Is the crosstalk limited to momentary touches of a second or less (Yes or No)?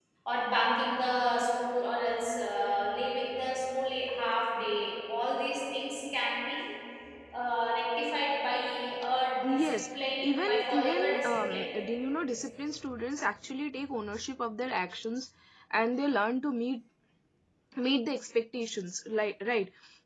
No